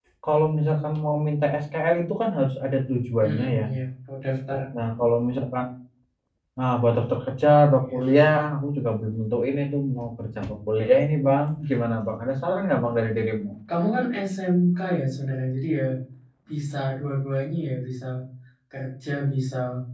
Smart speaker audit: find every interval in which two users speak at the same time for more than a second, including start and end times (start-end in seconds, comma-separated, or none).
none